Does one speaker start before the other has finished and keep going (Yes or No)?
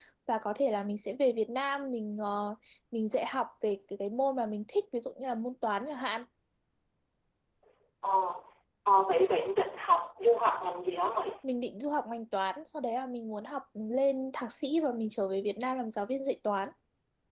No